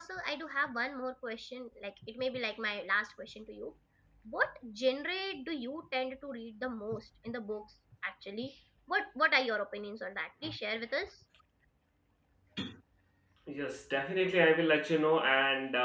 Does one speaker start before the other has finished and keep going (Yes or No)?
No